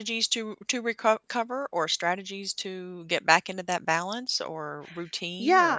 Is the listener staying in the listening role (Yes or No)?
No